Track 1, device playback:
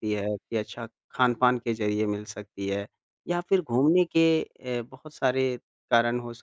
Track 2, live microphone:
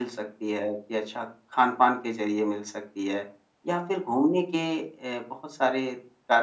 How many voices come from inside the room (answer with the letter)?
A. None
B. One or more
A